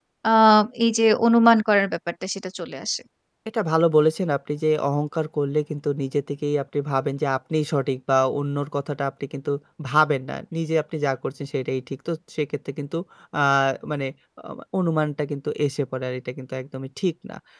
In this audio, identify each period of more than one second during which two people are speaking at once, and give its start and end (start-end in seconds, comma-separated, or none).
none